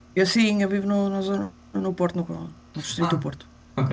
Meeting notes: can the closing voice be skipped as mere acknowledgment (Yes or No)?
No